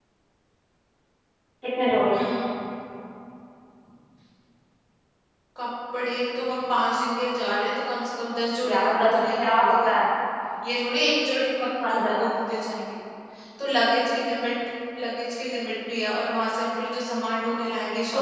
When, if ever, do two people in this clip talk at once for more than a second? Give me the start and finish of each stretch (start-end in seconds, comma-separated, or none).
8.7-9.9